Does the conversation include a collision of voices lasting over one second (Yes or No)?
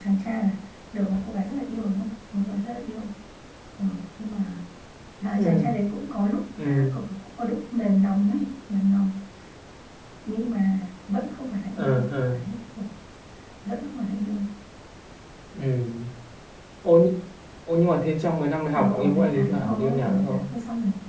Yes